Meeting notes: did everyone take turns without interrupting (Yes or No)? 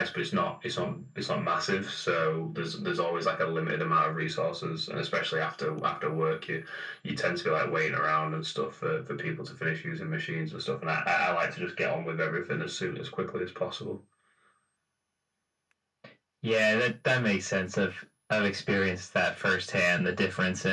Yes